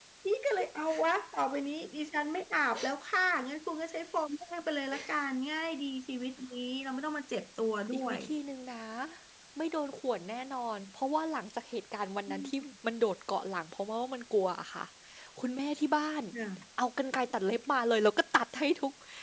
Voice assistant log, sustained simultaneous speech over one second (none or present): none